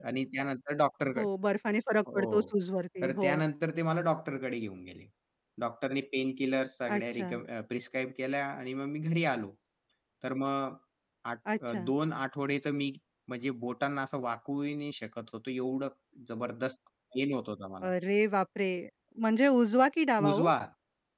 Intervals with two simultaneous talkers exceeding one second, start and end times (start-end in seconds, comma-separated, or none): none